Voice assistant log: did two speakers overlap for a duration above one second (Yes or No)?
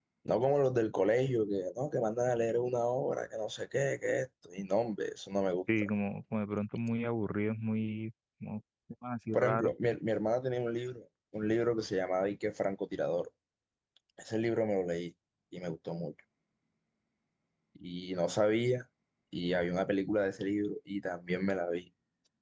No